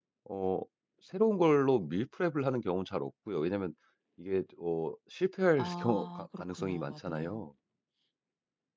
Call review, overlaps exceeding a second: present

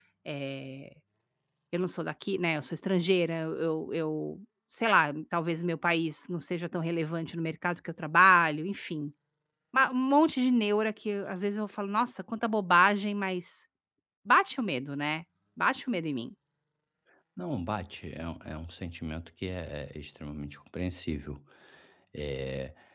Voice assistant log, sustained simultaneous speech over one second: none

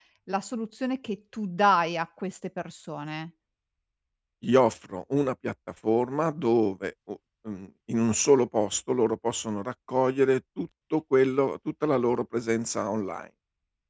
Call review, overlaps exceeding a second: none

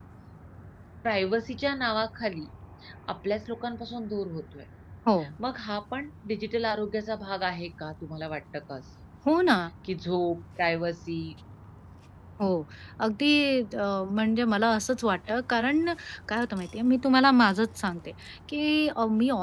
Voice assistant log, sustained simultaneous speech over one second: none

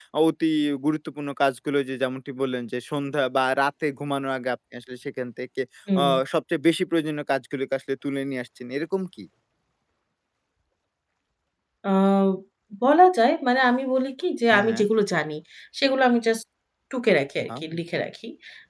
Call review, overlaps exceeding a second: none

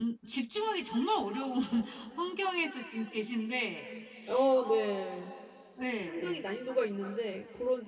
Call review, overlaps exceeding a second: none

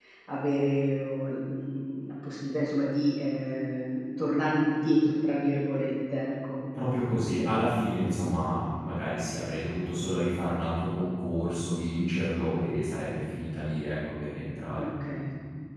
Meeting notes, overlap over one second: none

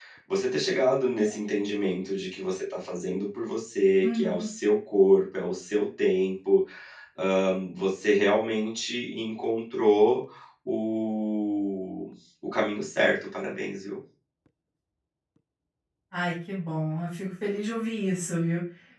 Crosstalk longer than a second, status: none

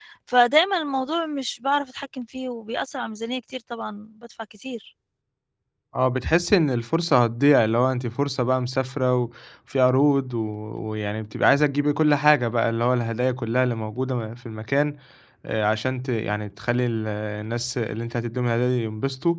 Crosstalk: none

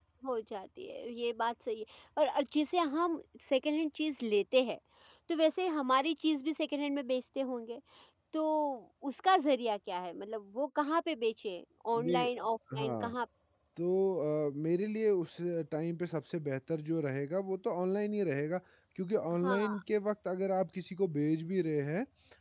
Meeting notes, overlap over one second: none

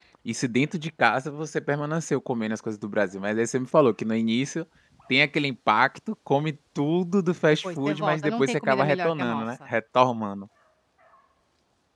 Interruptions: present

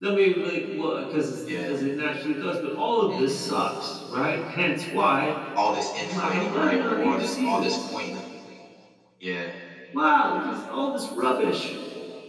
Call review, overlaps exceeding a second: present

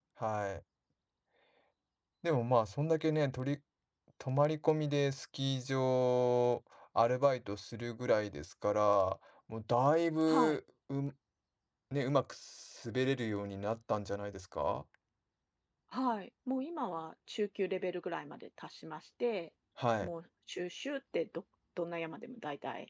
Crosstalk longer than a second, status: none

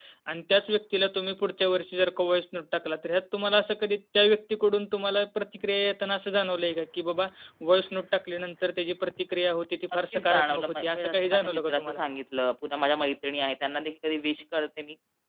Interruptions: present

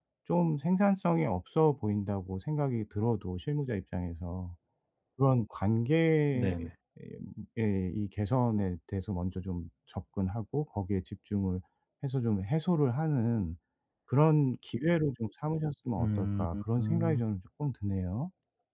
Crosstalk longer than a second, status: present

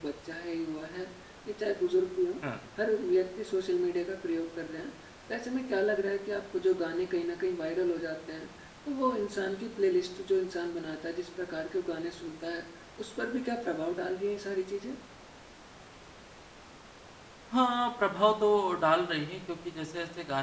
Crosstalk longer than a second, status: none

